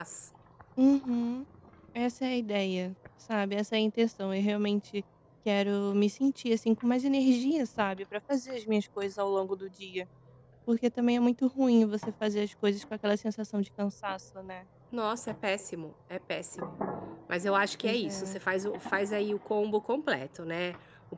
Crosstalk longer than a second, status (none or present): none